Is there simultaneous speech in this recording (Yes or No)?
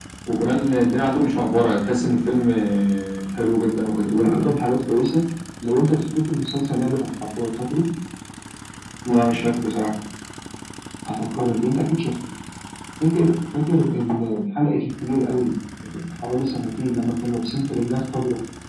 No